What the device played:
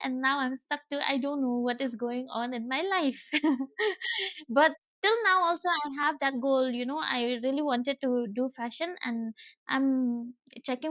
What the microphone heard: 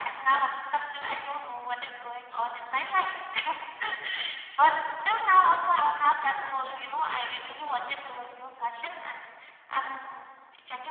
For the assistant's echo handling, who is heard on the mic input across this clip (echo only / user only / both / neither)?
echo only